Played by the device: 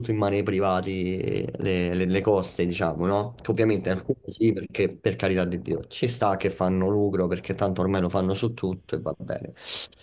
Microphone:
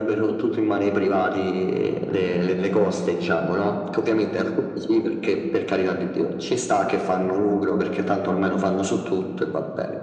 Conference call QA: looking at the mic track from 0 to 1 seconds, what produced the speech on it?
echo only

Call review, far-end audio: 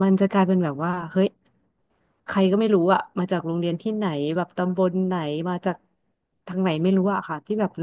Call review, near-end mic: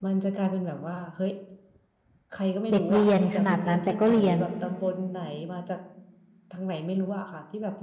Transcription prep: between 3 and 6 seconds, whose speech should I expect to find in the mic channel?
both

